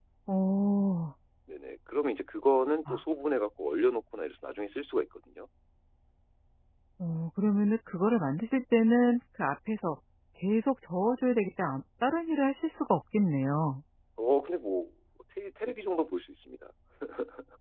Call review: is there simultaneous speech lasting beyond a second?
No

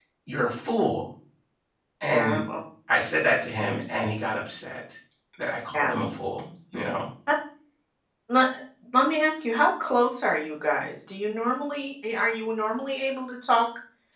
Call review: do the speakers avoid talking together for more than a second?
Yes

